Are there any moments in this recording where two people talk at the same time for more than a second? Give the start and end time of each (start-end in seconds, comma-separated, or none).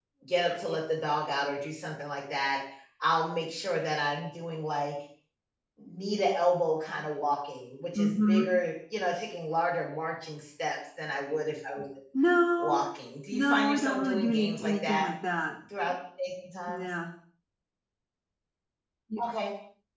13.3-15.1